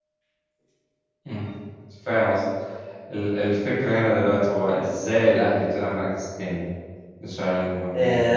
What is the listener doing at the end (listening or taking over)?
taking over